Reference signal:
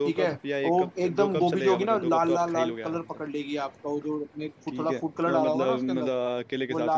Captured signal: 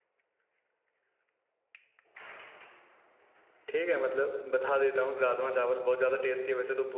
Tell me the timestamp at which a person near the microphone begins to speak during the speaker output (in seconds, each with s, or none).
3.7 s